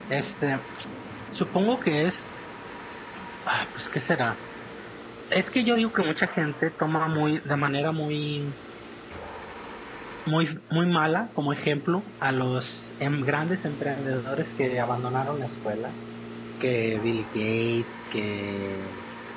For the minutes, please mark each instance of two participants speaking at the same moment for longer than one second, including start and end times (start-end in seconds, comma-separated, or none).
none